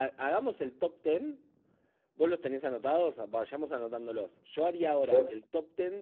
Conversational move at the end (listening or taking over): listening